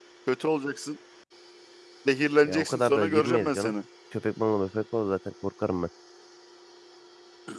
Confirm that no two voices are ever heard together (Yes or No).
No